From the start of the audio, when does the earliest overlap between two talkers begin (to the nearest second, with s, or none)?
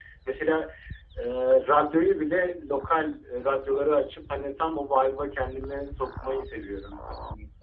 none